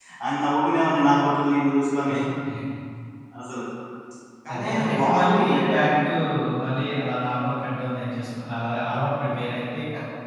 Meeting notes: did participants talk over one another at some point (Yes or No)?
Yes